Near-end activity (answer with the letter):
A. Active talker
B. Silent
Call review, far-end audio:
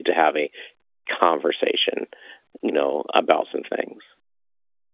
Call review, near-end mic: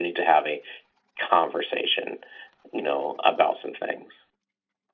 B